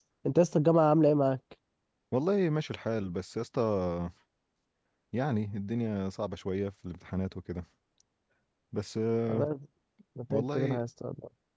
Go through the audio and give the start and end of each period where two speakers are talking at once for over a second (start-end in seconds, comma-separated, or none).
none